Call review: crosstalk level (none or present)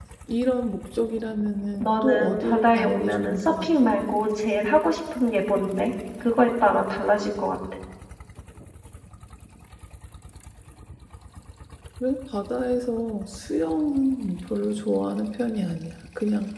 present